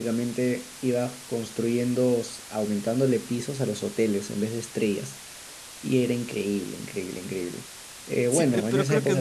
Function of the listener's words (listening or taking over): taking over